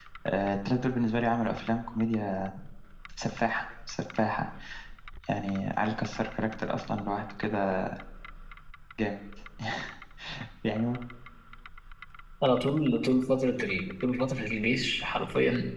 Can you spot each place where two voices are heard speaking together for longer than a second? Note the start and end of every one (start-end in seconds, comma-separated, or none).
none